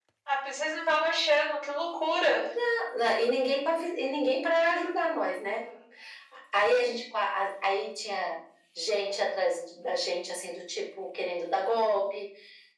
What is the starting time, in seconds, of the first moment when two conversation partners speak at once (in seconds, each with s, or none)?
none